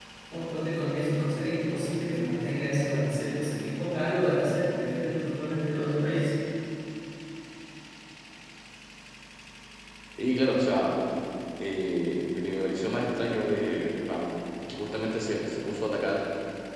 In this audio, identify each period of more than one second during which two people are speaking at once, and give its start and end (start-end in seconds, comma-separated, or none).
none